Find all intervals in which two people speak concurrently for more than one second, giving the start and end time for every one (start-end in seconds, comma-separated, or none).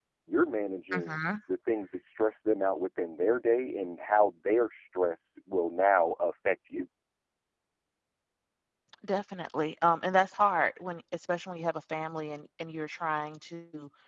none